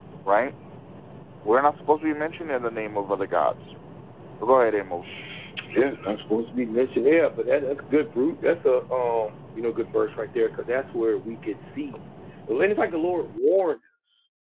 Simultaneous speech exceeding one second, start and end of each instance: none

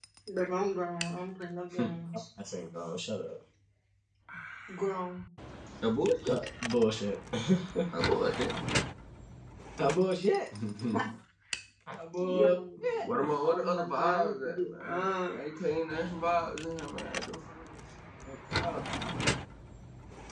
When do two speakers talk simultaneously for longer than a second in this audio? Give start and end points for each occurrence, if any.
13.4-15.3

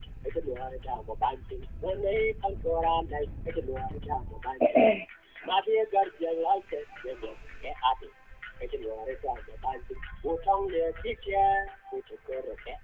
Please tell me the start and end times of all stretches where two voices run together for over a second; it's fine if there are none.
none

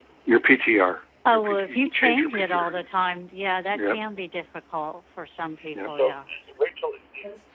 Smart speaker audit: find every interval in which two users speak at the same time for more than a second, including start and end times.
1.3-2.7

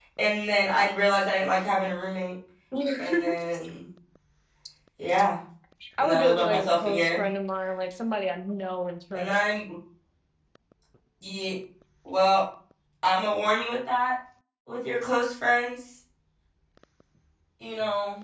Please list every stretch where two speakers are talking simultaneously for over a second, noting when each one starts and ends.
6.0-7.2

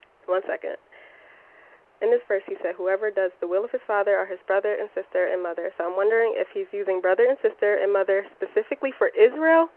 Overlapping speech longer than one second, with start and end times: none

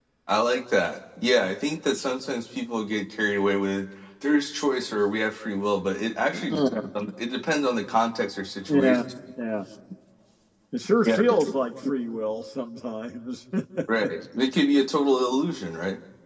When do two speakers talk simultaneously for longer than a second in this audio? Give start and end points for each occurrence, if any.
none

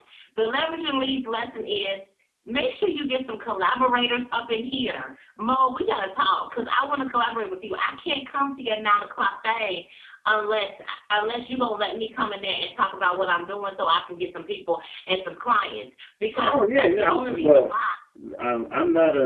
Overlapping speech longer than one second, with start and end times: 16.4-17.7

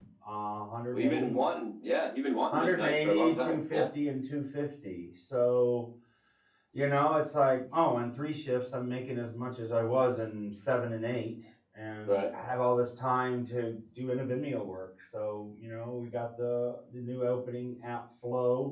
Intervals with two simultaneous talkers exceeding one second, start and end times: 2.5-3.8

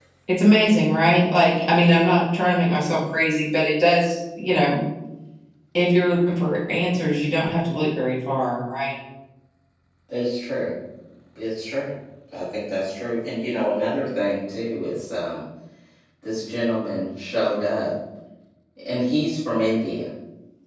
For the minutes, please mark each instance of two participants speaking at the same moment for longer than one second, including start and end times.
none

